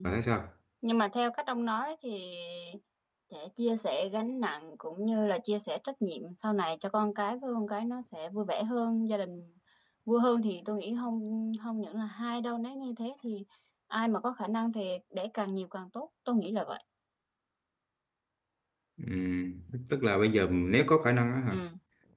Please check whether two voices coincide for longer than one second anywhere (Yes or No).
No